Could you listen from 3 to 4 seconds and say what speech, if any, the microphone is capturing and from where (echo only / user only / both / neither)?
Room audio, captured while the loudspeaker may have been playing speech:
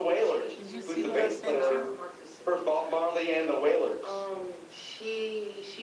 echo only